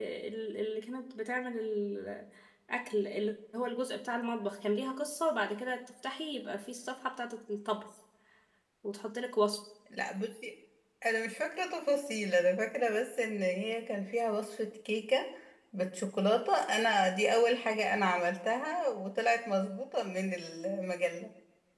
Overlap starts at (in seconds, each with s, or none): none